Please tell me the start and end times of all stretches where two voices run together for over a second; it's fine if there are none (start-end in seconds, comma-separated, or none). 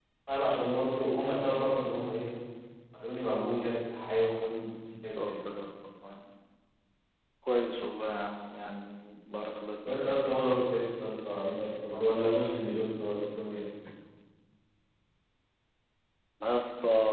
none